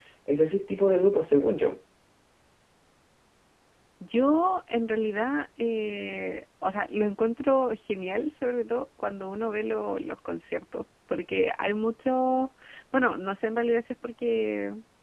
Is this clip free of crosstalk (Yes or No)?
Yes